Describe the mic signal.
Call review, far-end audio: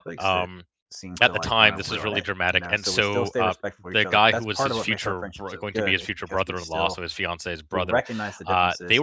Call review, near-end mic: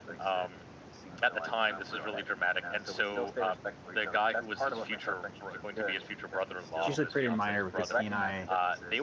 both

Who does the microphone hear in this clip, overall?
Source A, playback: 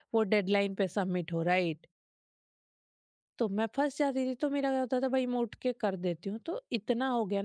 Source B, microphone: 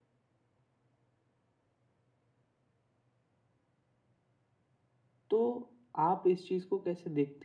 user only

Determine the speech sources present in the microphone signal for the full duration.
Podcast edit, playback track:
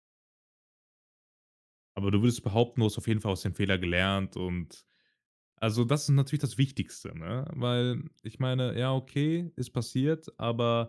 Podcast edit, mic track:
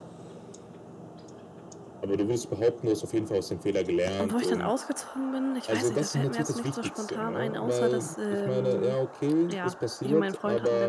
both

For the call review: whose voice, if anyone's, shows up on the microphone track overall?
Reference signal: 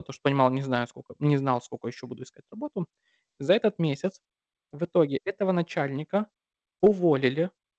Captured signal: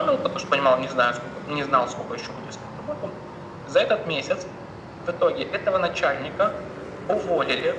echo only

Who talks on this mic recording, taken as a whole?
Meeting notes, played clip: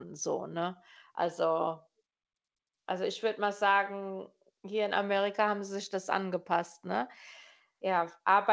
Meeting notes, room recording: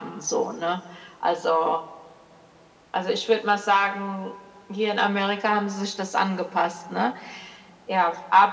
echo only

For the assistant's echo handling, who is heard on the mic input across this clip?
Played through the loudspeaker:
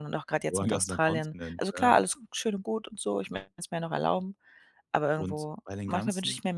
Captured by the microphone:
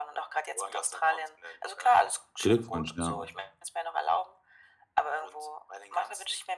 both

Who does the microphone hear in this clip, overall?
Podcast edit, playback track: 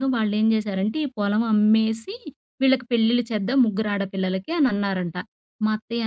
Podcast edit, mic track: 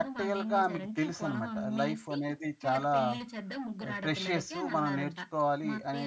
both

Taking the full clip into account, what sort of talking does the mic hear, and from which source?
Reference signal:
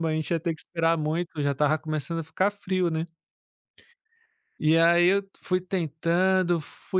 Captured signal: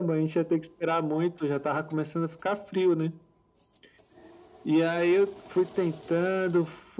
echo only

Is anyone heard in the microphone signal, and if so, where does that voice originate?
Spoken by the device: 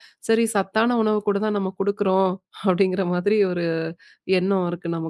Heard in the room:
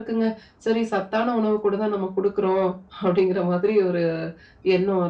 echo only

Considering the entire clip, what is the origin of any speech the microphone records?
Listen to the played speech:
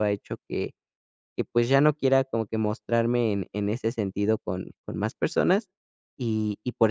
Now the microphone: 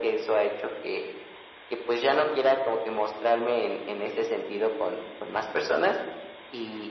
echo only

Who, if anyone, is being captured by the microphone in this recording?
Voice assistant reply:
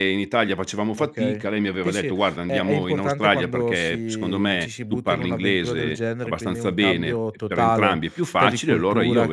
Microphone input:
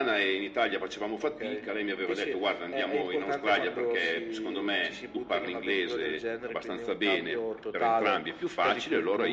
echo only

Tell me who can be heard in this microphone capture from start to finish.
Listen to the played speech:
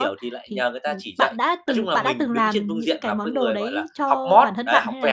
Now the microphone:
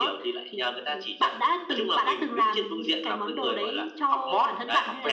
echo only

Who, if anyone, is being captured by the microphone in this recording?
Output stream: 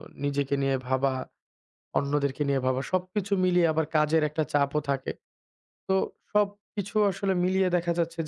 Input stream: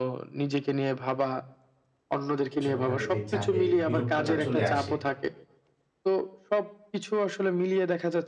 both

